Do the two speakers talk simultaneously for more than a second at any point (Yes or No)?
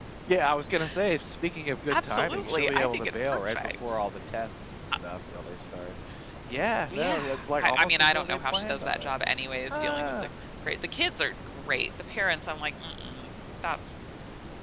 Yes